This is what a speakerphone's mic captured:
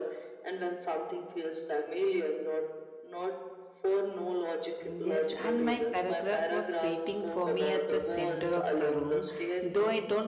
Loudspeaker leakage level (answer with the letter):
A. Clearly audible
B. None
A